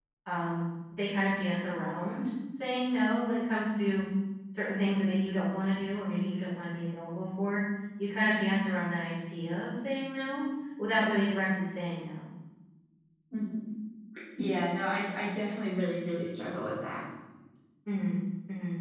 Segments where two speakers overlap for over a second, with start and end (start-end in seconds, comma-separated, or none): none